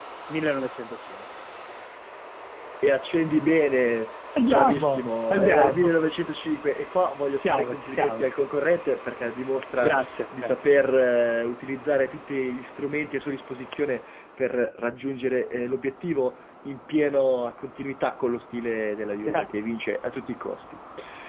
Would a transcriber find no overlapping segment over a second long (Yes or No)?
No